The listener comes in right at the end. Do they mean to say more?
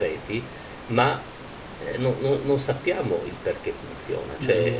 Yes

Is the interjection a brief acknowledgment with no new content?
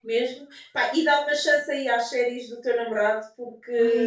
No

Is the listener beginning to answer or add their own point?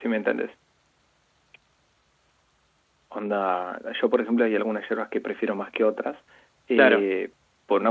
No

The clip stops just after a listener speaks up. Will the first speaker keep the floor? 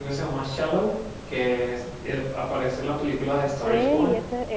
No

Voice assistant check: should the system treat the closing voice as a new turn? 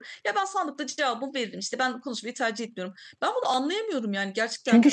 Yes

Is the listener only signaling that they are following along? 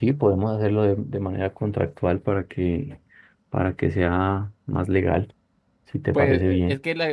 No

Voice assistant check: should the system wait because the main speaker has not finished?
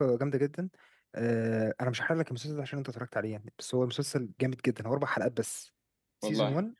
Yes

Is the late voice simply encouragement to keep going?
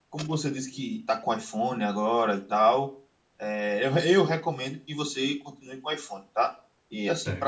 Yes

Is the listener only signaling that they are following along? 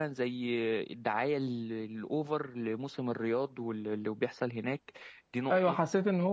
No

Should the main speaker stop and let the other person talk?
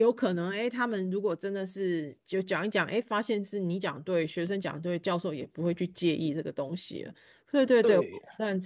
Yes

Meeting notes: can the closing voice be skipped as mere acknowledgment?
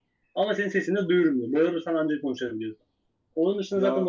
Yes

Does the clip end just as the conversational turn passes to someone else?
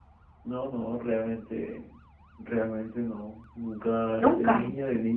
No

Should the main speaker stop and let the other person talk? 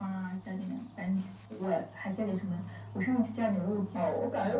Yes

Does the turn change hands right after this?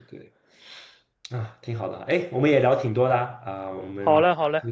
Yes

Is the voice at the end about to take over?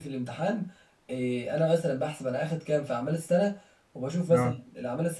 No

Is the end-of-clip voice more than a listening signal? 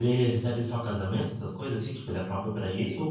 Yes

